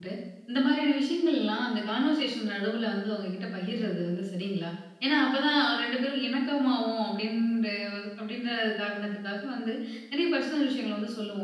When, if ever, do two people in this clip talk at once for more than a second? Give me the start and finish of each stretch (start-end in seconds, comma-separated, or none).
none